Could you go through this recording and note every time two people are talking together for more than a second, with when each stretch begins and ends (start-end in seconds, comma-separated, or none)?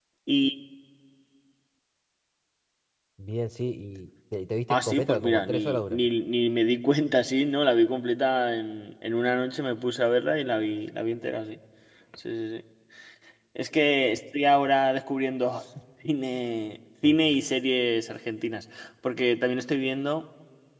4.7-6.1